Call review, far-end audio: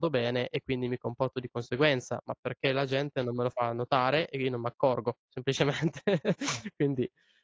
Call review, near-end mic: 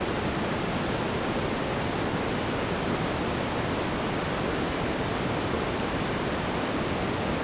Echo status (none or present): none